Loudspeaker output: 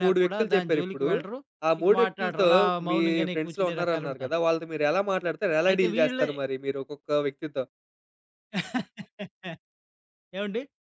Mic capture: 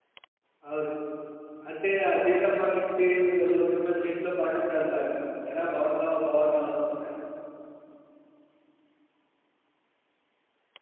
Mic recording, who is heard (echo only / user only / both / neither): user only